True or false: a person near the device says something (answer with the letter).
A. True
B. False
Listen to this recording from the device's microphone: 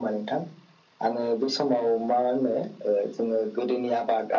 B